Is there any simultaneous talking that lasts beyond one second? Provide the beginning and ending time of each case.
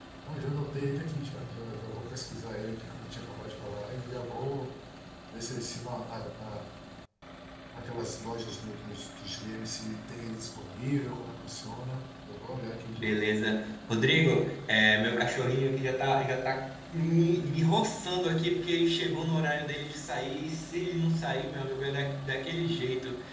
none

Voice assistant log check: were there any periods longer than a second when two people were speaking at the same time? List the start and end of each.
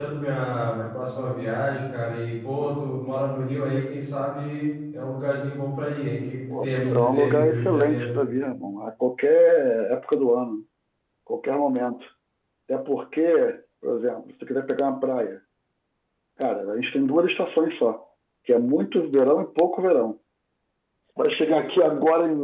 6.6-8.1

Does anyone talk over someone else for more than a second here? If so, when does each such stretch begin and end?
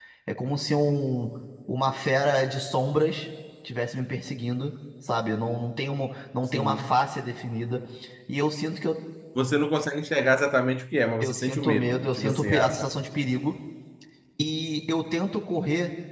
11.2-12.9

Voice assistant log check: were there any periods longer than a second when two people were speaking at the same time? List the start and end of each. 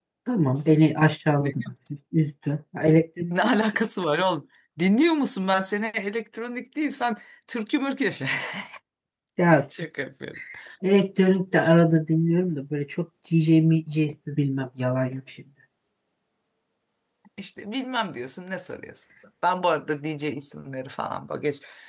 none

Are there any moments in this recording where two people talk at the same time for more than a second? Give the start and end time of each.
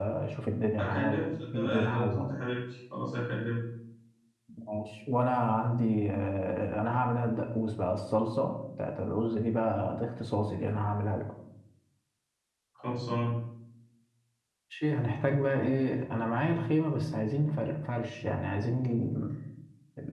0.8-2.2

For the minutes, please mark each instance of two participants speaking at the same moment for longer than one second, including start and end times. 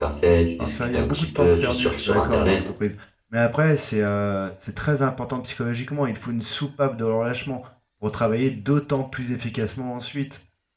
0.6-2.7

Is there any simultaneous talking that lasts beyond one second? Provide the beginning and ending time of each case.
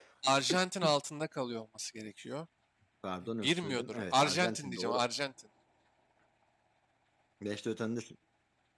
3.4-5.0

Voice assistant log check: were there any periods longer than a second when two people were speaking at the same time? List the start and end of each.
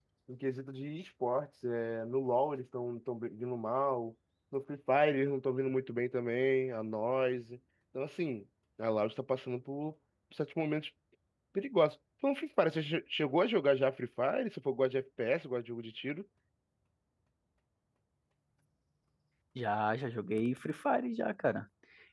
none

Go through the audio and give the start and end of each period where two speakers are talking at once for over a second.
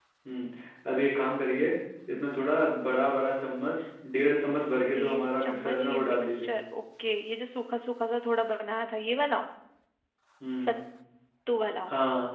5.0-6.5

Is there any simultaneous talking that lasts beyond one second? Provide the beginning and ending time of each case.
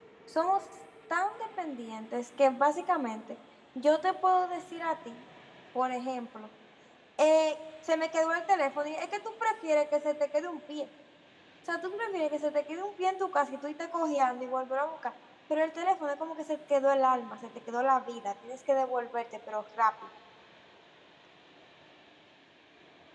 none

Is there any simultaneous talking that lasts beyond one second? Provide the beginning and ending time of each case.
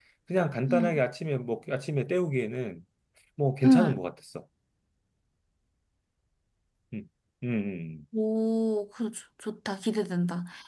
none

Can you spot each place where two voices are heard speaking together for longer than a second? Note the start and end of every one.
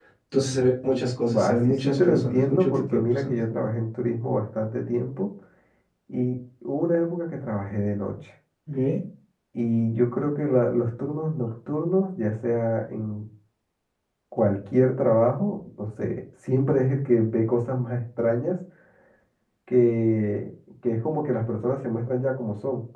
1.3-3.4

